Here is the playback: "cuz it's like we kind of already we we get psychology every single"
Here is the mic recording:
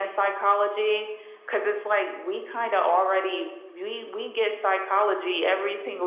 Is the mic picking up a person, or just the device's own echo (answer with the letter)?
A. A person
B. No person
B